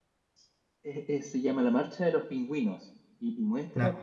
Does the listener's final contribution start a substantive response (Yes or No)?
No